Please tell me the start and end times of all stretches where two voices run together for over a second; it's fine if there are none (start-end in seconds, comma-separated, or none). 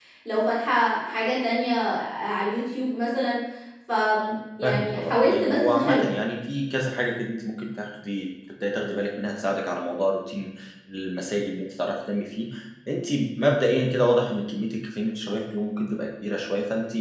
4.6-6.0